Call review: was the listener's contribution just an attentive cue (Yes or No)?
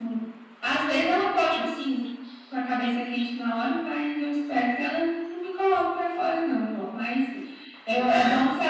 Yes